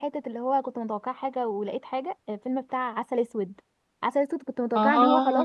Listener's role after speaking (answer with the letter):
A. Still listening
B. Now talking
A